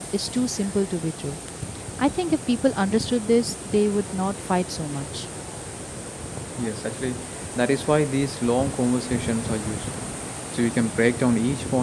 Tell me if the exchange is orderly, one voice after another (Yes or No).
Yes